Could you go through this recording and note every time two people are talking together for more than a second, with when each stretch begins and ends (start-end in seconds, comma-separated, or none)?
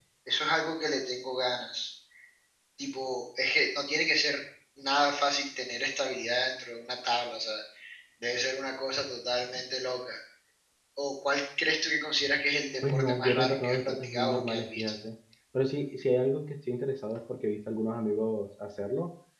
12.9-14.9